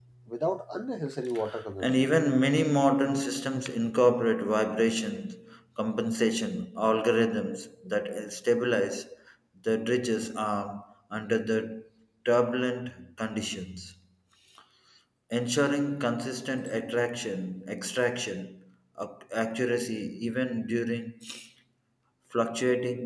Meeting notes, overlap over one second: none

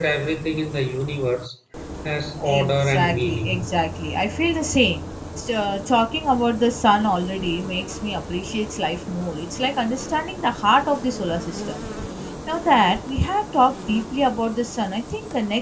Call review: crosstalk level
present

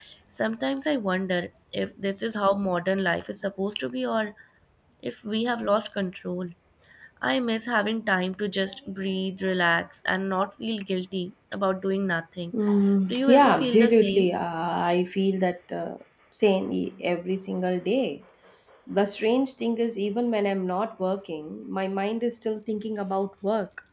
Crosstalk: present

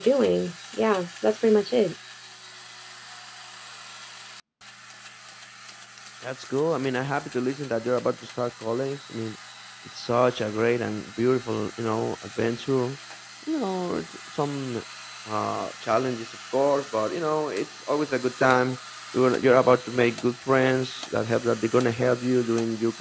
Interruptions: none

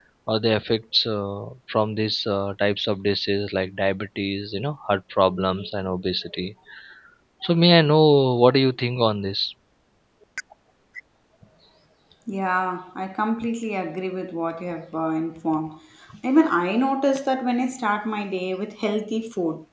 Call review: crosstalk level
none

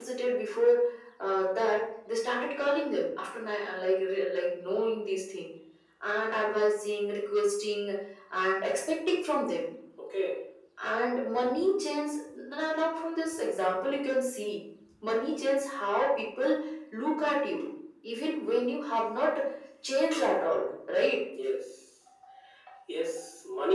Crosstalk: none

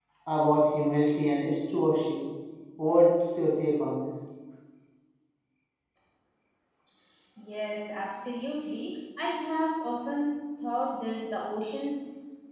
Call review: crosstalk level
none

